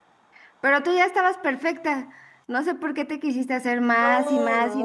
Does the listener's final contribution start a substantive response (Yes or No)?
Yes